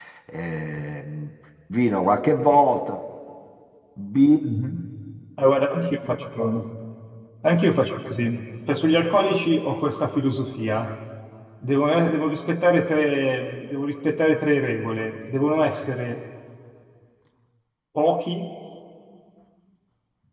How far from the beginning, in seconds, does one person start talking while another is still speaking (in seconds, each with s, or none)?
none